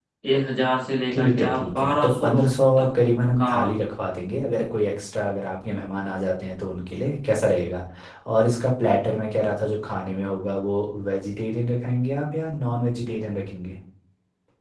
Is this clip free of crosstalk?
No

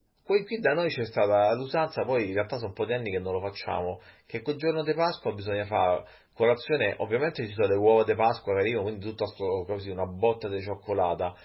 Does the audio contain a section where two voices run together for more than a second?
No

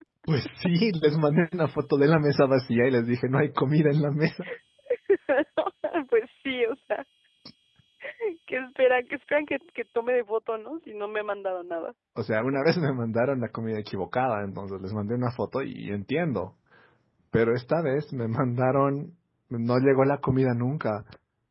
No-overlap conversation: Yes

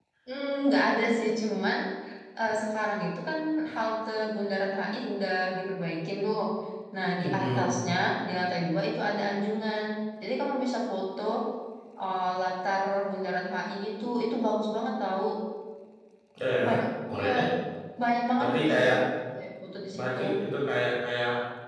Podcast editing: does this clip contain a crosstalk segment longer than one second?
No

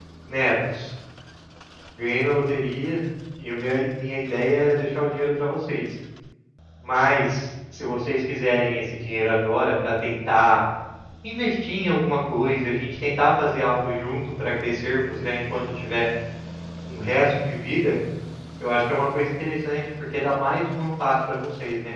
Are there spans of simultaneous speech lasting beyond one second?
No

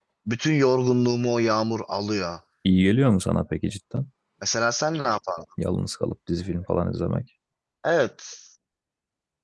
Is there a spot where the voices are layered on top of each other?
No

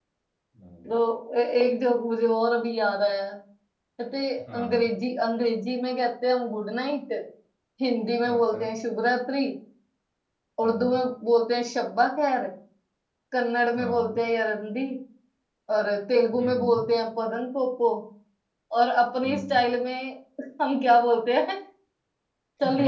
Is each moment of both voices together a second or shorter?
Yes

